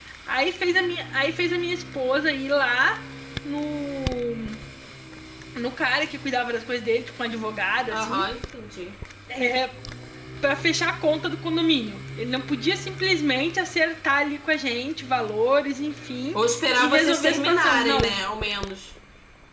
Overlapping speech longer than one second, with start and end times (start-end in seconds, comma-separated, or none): 16.8-18.1